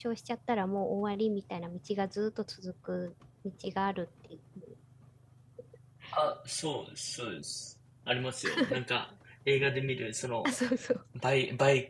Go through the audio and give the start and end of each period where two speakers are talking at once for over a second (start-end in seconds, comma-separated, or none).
none